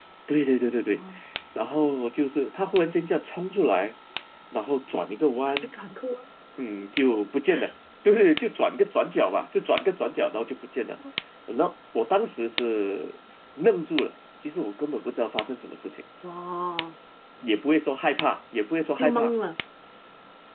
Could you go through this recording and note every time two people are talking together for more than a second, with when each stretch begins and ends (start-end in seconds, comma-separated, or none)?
none